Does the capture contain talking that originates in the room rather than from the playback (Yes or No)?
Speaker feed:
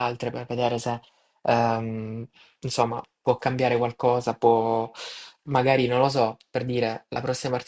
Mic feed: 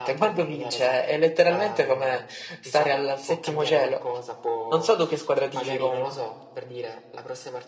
Yes